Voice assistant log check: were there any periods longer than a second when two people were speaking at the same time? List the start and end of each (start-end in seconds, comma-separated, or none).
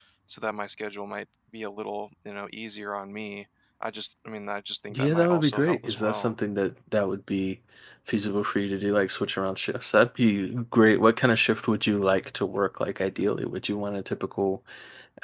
4.9-6.3